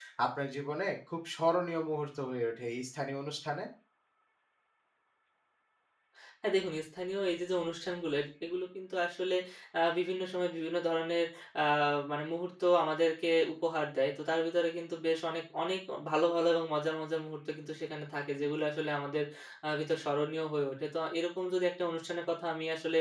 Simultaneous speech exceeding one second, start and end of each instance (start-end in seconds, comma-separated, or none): none